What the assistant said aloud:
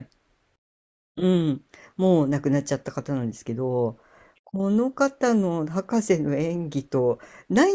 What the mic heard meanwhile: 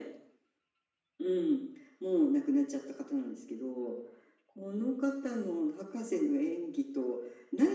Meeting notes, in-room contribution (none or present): none